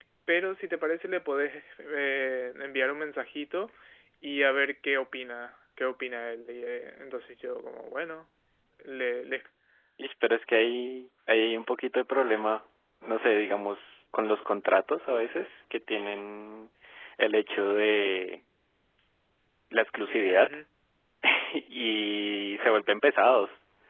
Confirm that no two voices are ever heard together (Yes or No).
Yes